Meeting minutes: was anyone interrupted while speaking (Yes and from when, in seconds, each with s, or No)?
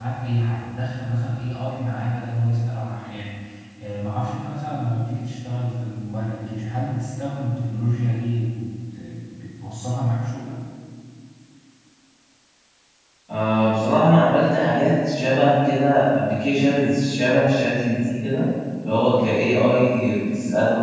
No